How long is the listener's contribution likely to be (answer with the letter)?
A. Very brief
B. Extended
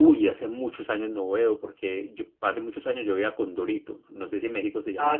B